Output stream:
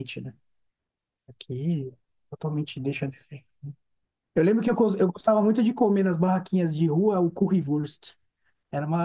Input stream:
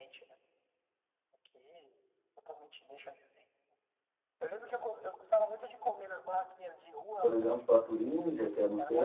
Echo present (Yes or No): Yes